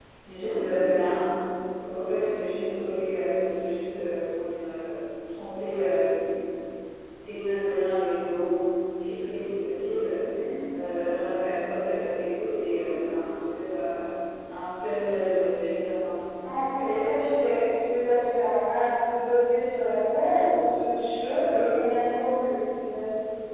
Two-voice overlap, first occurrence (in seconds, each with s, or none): none